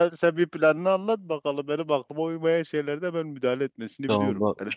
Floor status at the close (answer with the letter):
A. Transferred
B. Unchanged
A